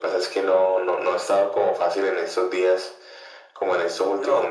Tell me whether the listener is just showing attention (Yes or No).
Yes